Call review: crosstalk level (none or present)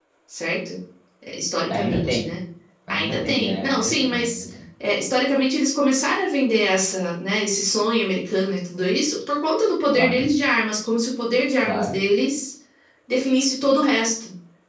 present